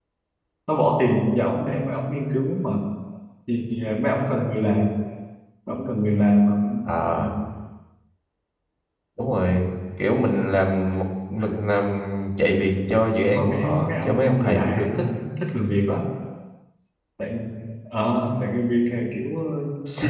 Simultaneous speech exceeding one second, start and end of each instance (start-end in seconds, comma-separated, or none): 13.3-15.1